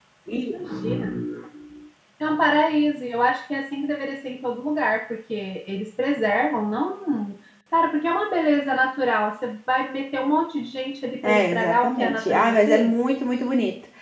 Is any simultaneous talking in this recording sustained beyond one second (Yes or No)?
Yes